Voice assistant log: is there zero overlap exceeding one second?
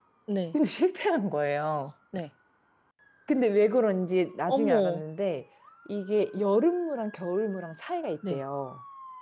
Yes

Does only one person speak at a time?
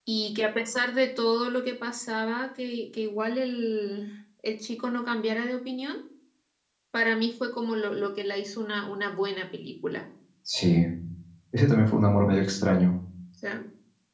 Yes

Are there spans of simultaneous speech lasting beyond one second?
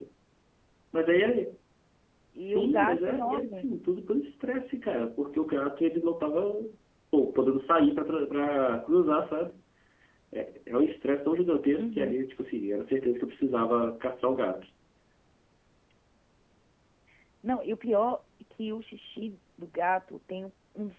Yes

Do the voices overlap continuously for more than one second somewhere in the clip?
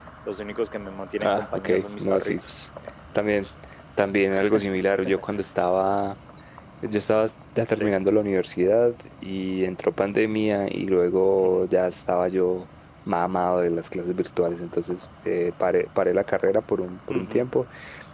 Yes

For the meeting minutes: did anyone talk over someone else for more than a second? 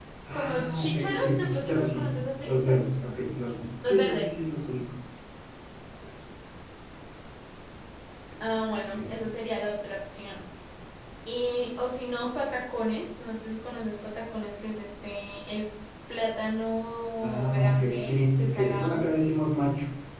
Yes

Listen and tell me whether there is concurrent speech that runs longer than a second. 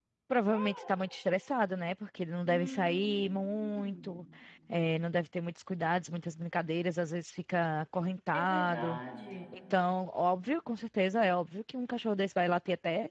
Yes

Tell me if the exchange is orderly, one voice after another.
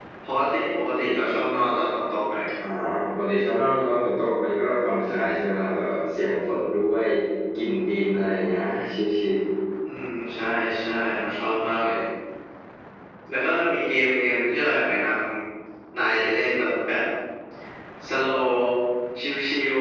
Yes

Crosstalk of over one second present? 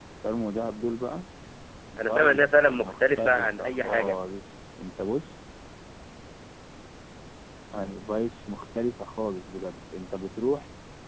Yes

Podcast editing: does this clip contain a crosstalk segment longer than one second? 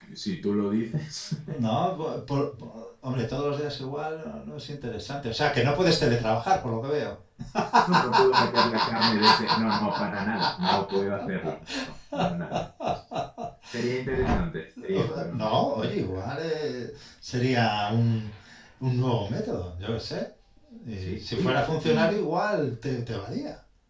Yes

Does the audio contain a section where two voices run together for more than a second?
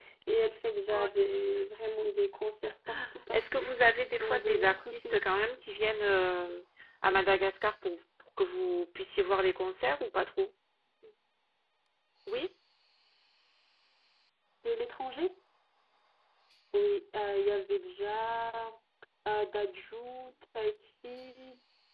Yes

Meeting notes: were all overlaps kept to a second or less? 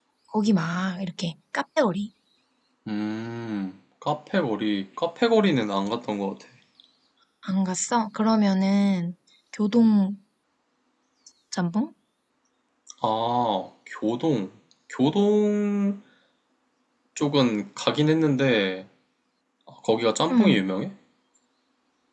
Yes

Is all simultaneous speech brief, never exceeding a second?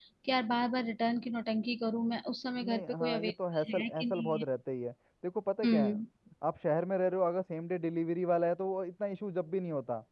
No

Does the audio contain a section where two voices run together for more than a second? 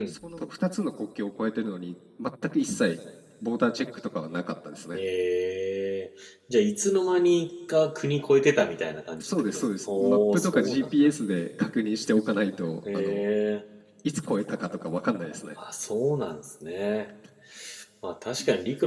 Yes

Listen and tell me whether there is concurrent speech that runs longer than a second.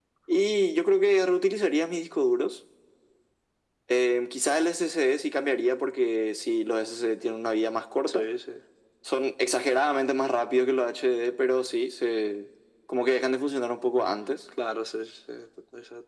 No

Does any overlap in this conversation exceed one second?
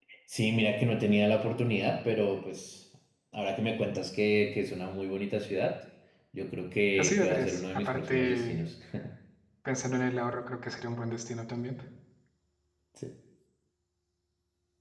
Yes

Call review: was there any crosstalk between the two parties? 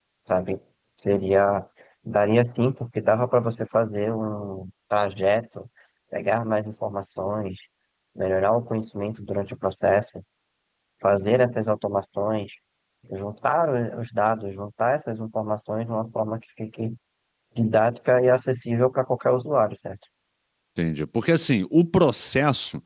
No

